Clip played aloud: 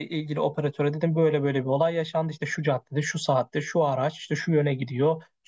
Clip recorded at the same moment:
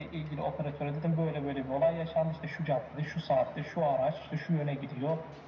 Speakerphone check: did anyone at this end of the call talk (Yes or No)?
No